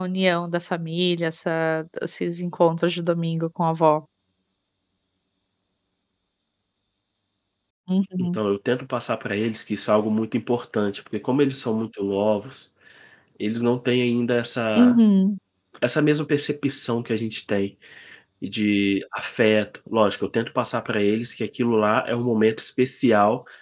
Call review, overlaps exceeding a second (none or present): none